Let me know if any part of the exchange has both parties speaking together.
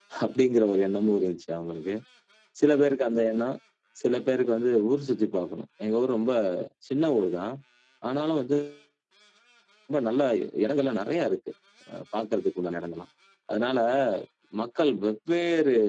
No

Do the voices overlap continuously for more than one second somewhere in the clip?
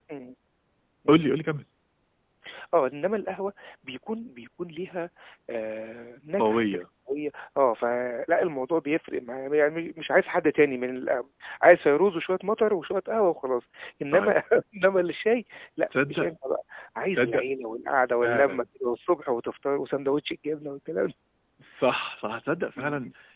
No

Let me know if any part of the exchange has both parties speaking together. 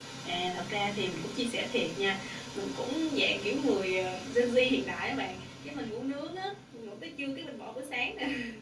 No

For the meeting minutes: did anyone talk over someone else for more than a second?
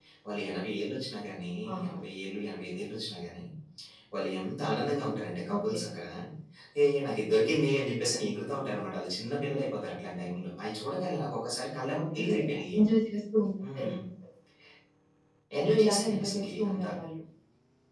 Yes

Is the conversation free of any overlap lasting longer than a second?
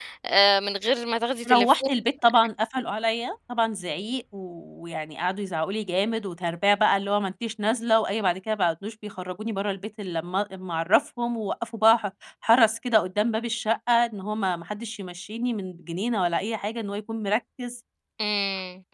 Yes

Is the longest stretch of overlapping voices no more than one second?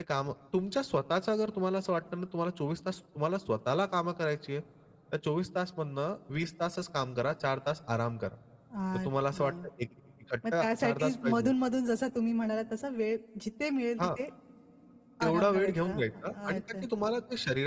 No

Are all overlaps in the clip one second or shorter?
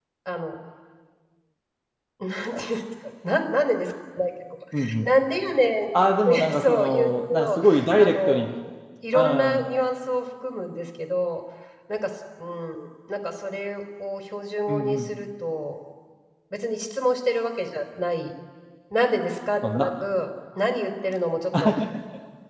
No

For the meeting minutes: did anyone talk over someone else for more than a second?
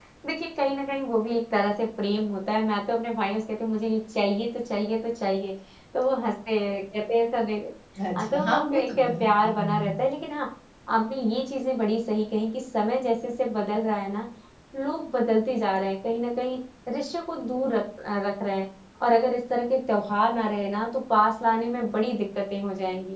Yes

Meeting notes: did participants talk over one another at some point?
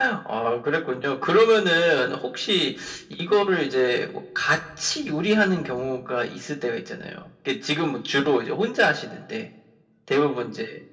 No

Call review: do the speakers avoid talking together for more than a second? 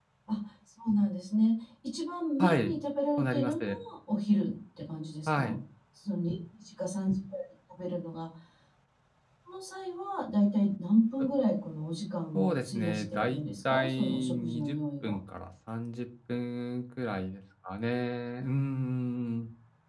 No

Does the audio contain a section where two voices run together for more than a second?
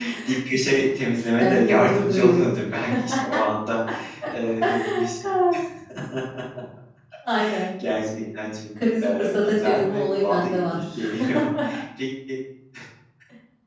Yes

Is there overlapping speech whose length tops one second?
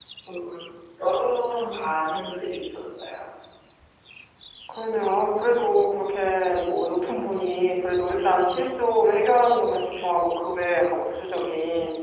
No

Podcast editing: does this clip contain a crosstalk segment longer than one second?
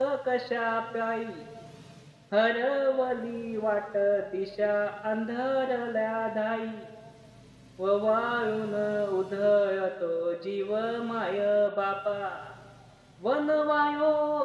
No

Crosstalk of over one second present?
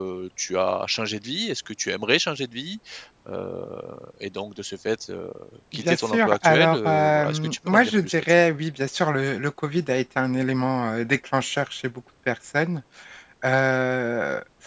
Yes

